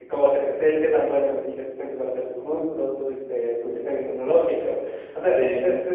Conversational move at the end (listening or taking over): listening